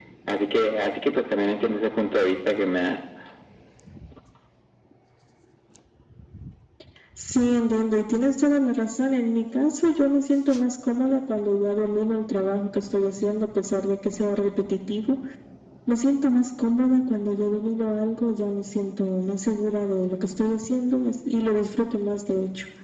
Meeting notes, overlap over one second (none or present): none